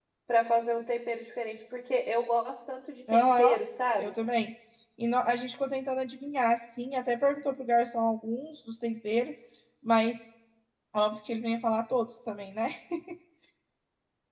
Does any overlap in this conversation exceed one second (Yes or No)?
No